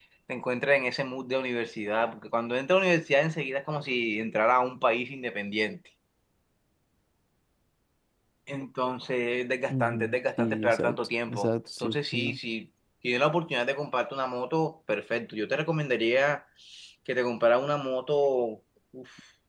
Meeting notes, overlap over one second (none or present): present